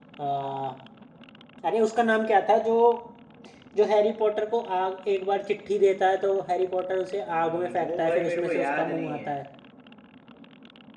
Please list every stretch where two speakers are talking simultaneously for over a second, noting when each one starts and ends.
7.3-9.3

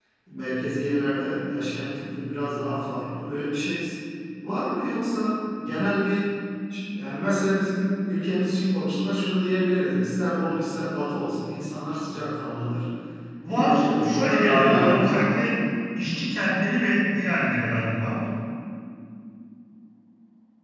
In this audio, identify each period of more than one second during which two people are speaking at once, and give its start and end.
13.5-15.4

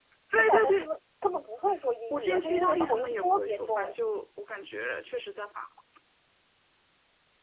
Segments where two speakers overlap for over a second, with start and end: 2.1-3.9

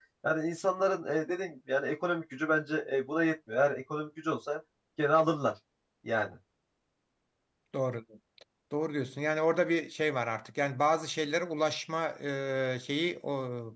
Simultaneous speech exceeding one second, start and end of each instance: none

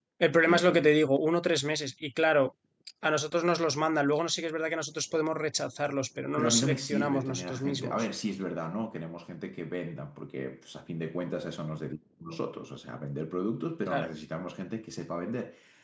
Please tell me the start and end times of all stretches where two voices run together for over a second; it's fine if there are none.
6.4-8.1

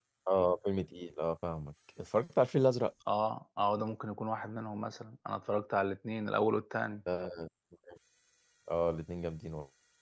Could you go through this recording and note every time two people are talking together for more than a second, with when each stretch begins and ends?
none

